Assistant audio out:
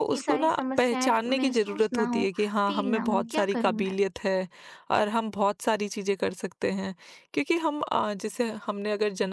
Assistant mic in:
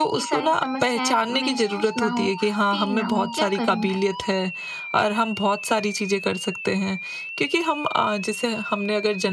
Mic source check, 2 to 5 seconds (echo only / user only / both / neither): echo only